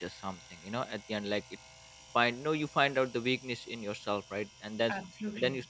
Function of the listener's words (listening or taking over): listening